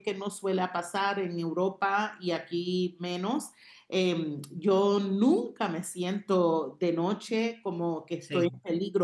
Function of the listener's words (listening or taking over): listening